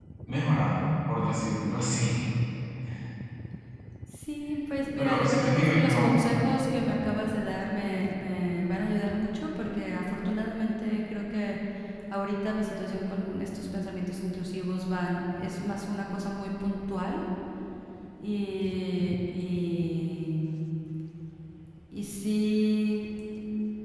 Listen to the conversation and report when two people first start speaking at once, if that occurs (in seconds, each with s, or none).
5.0 s